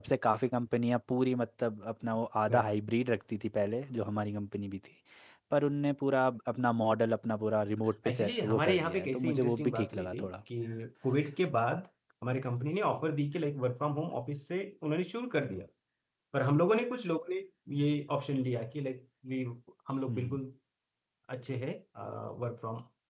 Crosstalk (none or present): present